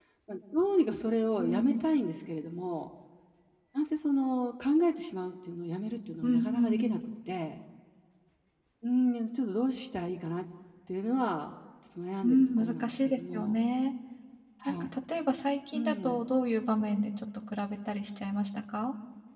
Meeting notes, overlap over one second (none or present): present